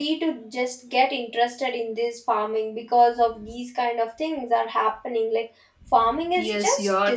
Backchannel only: No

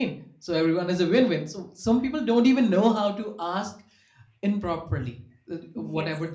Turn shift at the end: No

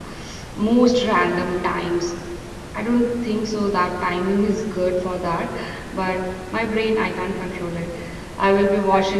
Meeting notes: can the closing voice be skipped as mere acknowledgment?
Yes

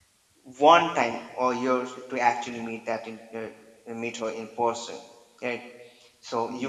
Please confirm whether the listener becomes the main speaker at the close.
No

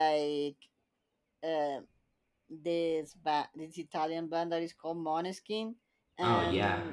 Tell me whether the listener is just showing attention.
Yes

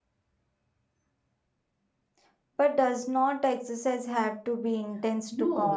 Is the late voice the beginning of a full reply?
Yes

